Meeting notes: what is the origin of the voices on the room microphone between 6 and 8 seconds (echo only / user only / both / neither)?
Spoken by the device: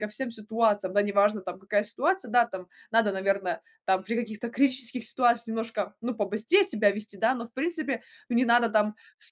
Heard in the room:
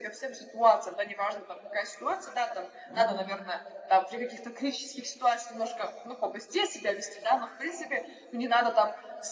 echo only